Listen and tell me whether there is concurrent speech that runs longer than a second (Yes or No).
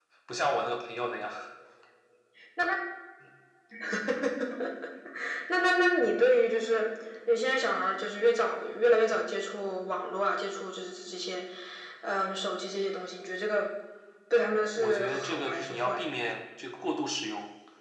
Yes